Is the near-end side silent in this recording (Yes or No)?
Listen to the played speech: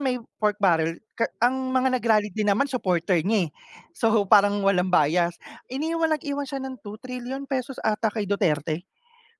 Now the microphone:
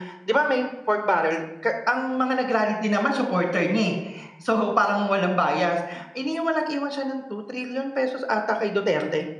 Yes